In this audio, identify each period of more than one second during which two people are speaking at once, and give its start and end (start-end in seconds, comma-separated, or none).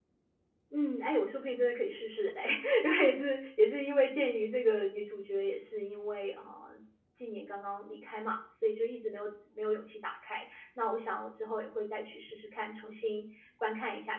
none